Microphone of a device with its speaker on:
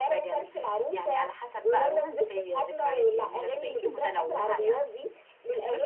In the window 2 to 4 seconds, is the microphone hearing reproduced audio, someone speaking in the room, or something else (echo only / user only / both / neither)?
both